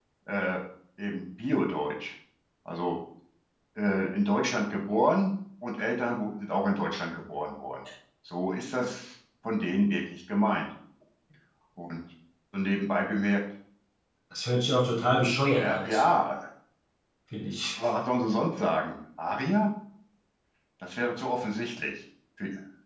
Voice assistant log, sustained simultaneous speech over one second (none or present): none